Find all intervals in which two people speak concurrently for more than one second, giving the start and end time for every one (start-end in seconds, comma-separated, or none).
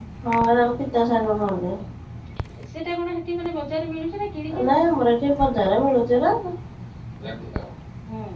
none